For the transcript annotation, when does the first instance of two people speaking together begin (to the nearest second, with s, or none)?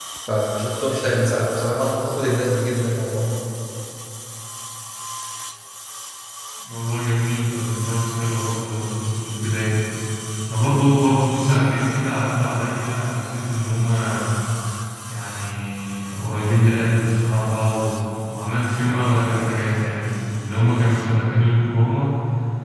none